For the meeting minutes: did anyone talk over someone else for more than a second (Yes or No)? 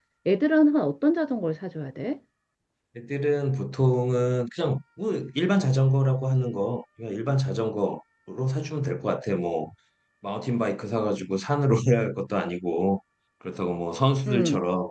No